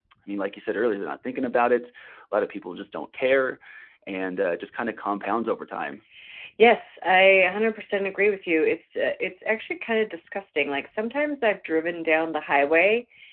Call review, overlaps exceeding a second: none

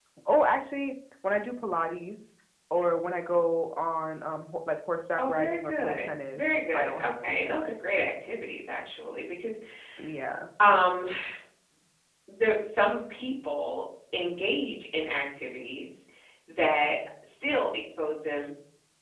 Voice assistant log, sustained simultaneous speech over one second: present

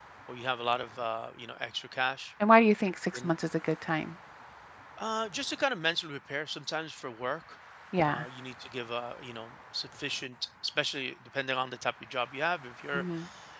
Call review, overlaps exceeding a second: none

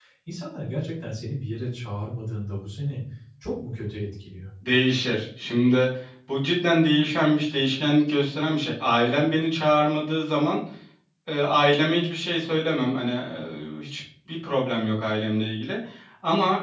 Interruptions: none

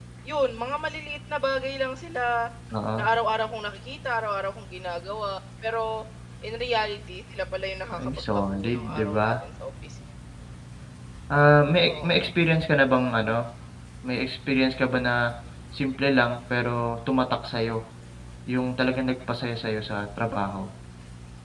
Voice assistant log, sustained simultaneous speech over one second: present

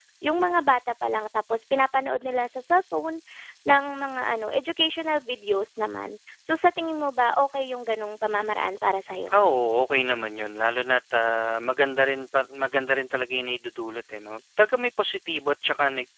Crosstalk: none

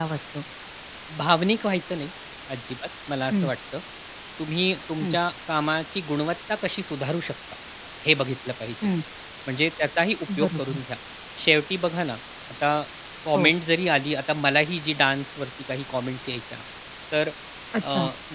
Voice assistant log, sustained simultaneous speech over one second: none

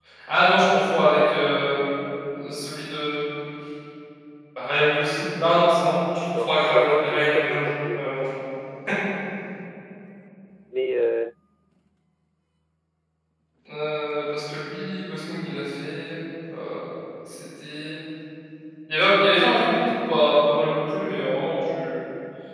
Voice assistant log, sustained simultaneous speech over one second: present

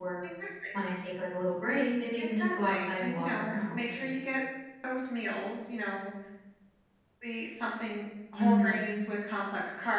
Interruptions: present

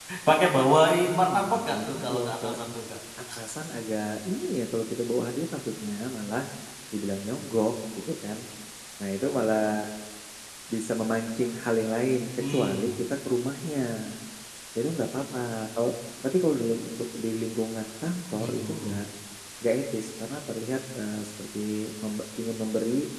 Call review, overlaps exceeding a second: present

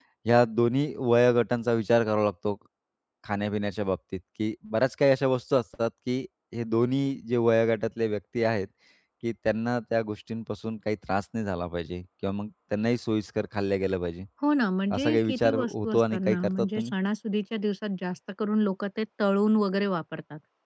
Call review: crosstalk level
present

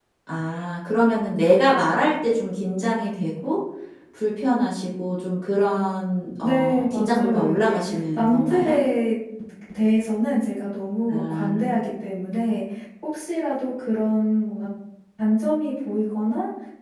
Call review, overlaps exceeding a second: present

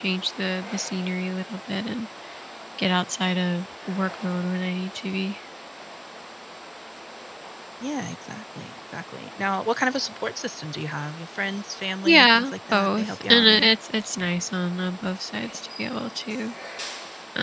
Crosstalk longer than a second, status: present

